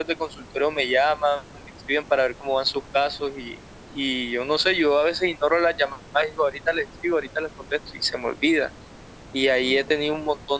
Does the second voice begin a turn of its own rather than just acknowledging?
No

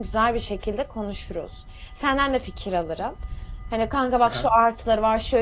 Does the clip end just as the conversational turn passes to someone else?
No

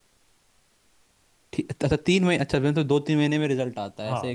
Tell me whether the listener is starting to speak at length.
Yes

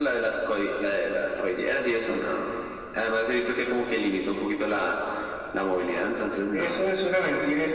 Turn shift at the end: Yes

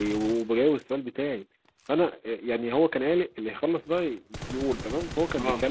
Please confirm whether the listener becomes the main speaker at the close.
No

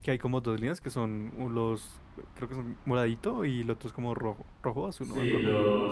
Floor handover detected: Yes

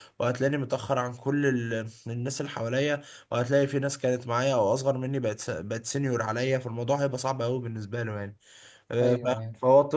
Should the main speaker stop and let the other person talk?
No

